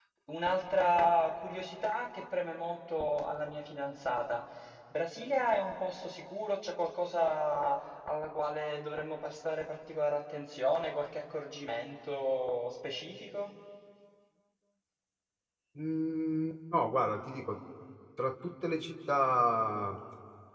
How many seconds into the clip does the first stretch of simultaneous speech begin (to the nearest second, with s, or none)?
none